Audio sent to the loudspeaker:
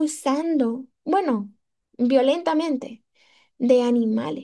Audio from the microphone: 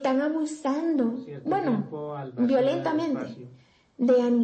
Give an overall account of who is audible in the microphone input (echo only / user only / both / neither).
both